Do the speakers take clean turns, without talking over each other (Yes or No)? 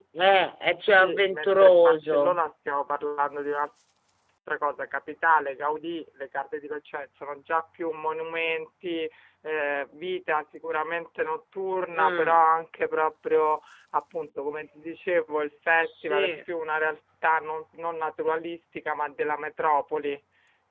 No